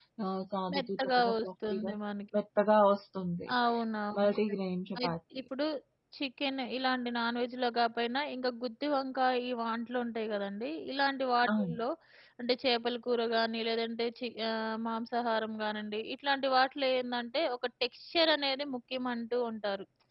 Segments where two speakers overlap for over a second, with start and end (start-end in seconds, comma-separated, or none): 0.7-1.9